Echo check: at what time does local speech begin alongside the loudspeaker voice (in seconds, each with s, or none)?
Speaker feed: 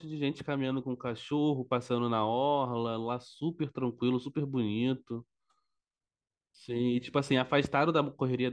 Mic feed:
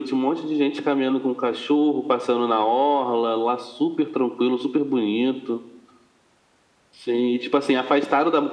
none